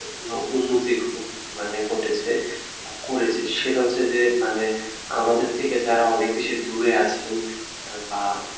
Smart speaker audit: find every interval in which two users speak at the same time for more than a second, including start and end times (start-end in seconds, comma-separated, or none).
none